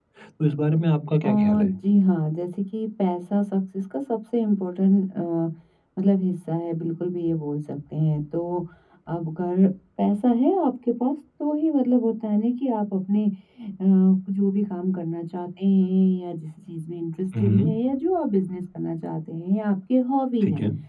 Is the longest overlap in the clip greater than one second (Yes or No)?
No